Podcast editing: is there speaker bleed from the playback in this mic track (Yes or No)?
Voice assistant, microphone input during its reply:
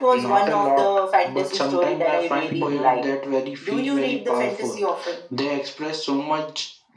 Yes